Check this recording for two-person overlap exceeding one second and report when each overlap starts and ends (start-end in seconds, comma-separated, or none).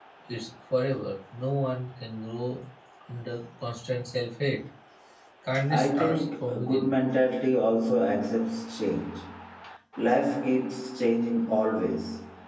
5.7-6.9